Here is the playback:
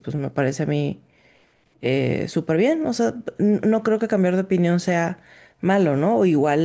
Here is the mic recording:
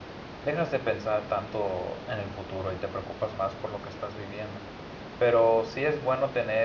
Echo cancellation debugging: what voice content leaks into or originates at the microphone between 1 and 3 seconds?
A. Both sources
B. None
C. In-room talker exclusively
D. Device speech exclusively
C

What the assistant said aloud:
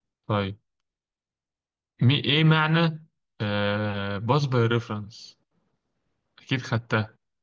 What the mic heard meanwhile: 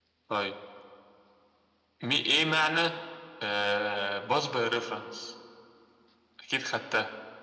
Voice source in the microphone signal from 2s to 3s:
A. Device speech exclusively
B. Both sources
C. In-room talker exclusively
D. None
A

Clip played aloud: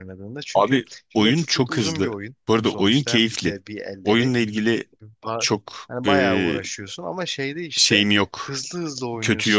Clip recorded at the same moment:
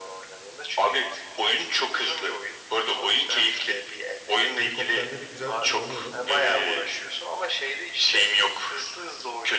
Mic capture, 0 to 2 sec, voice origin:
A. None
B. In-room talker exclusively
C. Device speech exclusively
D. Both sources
C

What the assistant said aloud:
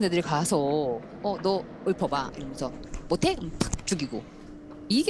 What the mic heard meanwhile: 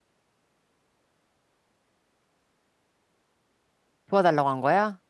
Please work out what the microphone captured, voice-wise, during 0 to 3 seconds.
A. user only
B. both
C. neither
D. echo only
C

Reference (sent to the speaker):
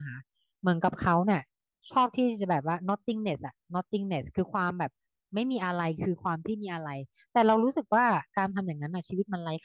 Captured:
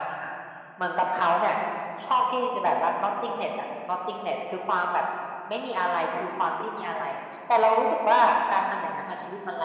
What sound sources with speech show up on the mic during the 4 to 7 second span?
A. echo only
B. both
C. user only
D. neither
A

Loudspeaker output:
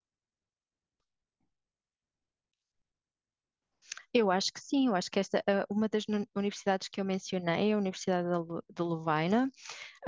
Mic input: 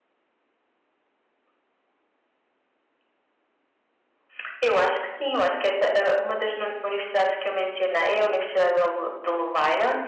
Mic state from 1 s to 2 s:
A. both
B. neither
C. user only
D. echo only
B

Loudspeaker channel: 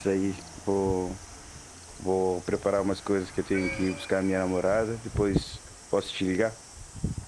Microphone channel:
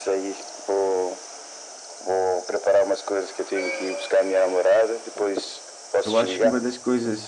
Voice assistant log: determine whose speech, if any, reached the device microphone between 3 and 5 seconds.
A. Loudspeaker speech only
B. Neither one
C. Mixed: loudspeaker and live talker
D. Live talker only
A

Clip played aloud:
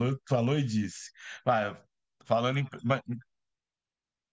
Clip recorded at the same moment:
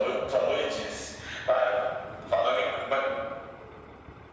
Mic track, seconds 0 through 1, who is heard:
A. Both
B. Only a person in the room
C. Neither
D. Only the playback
D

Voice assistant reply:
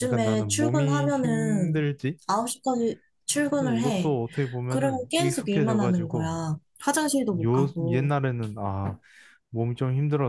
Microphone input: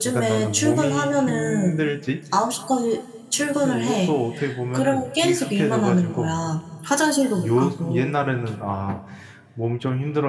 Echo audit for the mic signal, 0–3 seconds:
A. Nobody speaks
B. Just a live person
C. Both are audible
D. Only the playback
D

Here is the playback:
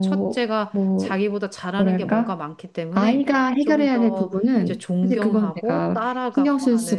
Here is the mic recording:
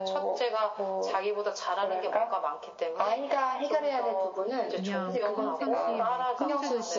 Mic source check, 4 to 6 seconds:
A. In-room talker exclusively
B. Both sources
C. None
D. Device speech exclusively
B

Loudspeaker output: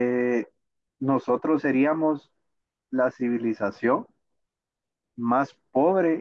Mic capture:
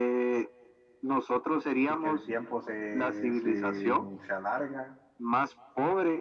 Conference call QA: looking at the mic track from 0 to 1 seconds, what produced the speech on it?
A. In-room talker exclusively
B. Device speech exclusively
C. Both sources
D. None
B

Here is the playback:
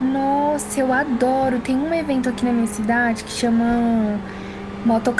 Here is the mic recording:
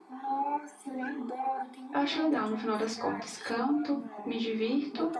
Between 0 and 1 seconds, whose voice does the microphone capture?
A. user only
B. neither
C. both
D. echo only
D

